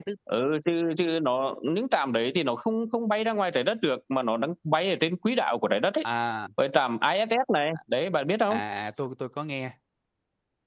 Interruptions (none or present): none